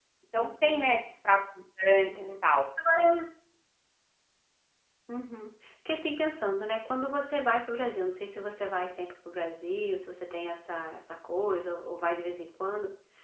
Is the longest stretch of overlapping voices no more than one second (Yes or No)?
Yes